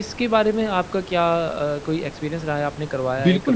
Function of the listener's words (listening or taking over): taking over